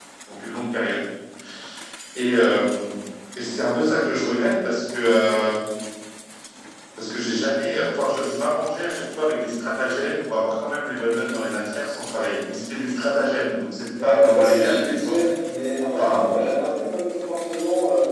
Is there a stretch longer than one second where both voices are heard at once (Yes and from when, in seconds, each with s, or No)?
Yes, from 14.0 s